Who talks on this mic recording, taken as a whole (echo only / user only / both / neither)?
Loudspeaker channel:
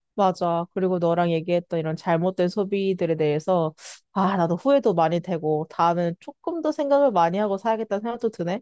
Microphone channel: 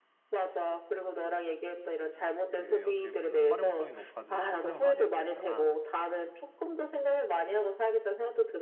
both